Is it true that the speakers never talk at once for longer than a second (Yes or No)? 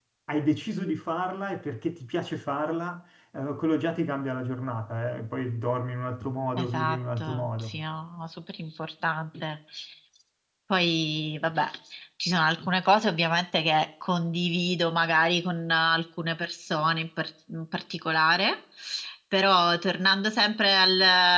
No